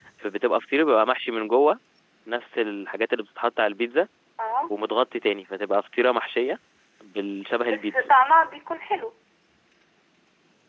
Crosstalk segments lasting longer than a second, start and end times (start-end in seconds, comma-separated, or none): none